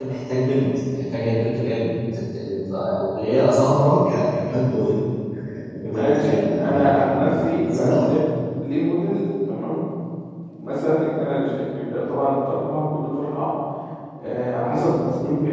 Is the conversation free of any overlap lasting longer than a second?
No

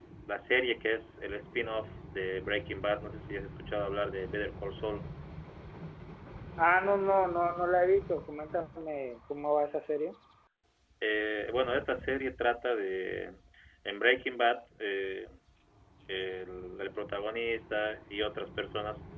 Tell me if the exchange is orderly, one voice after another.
Yes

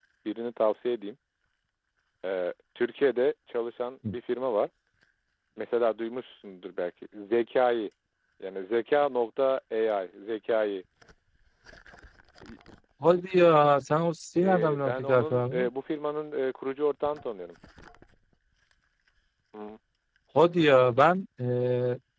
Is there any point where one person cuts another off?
Yes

